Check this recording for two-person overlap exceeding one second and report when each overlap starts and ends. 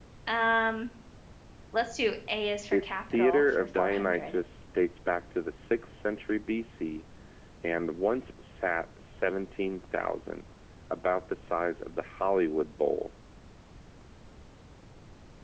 2.7-4.4

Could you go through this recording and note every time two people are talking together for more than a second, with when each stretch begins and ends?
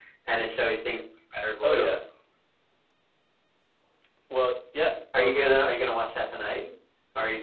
none

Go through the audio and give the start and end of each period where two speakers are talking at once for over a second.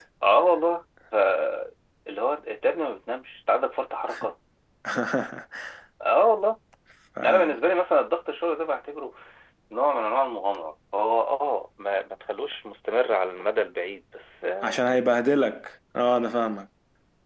none

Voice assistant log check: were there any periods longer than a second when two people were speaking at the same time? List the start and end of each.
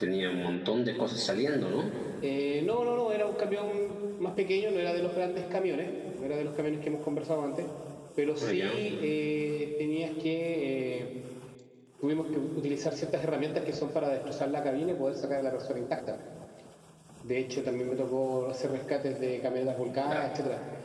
none

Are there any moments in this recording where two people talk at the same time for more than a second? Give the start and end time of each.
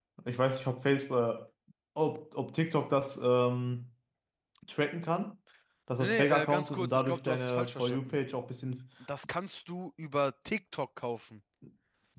6.0-8.2

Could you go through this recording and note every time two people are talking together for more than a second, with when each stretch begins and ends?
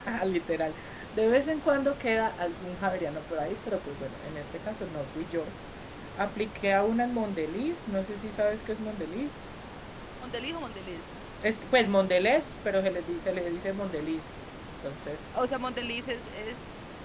none

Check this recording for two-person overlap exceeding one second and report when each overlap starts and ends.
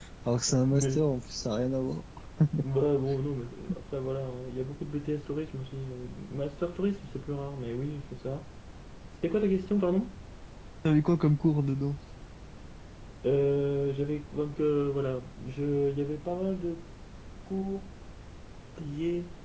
none

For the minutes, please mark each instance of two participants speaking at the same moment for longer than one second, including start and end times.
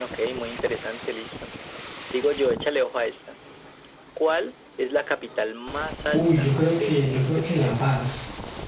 6.1-7.8

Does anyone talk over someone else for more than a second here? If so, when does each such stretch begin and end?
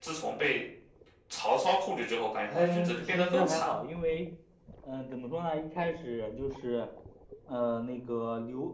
2.5-3.8

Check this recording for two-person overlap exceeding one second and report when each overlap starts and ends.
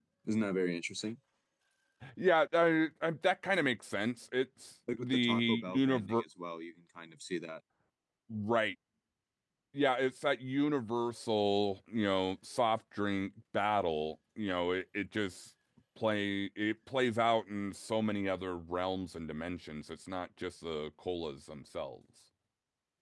5.0-6.2

